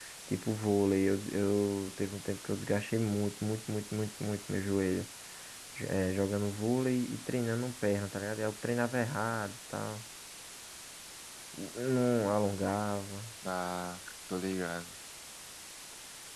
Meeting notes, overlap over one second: none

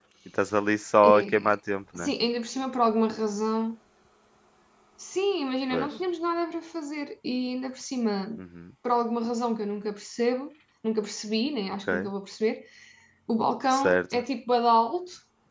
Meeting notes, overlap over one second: none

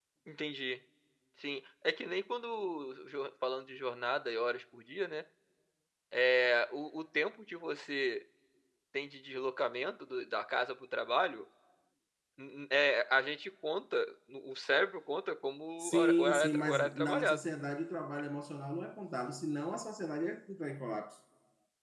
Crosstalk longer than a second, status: present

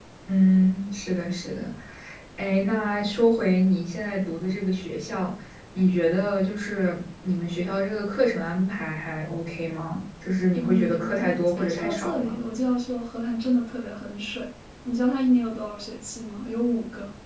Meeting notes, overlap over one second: present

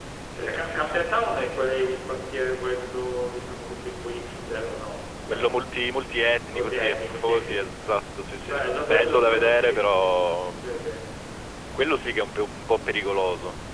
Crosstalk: present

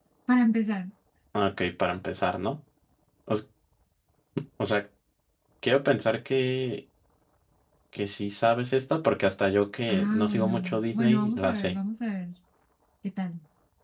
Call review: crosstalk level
present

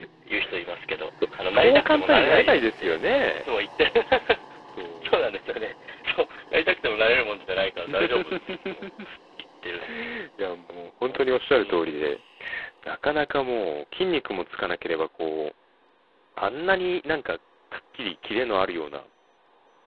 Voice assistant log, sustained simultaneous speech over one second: present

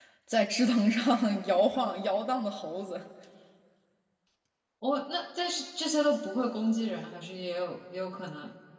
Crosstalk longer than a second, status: none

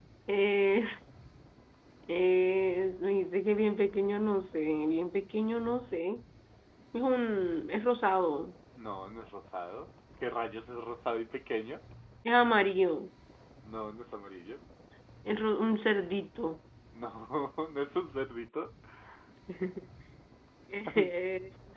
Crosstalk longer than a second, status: none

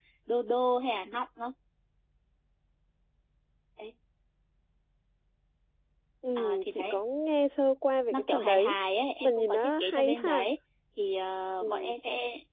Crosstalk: present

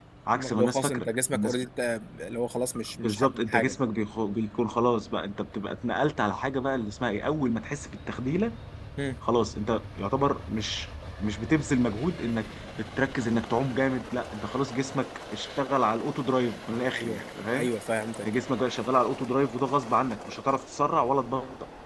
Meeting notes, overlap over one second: present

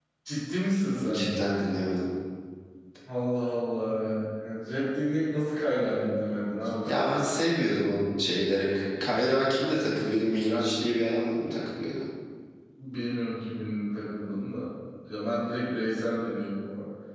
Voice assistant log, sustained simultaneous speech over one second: none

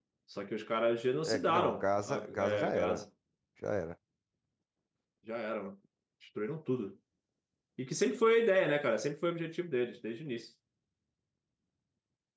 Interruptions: present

